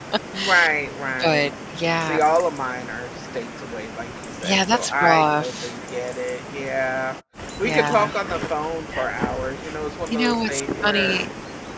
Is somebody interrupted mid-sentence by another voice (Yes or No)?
Yes